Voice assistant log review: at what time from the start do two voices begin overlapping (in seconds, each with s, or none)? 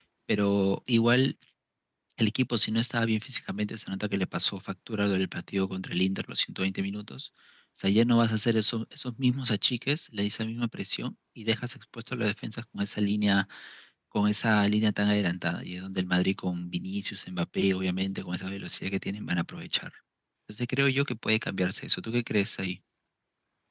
none